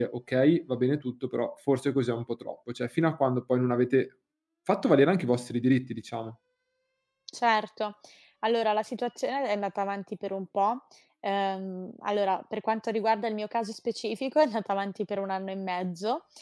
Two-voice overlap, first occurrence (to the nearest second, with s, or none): none